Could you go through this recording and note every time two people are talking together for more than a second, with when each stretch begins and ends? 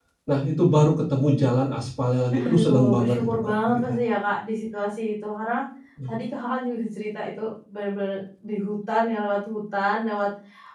2.3-4.0

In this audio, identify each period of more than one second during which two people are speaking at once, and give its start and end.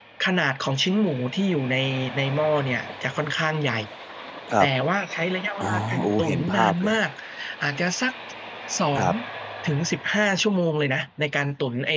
5.6-7.0

